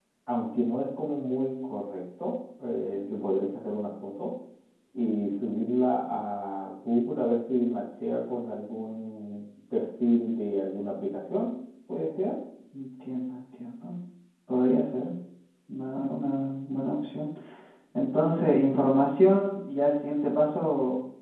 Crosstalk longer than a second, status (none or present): none